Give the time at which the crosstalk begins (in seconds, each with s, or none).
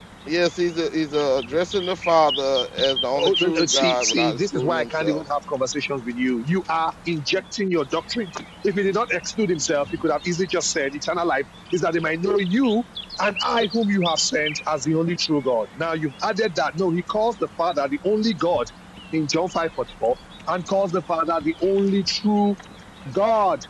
3.1 s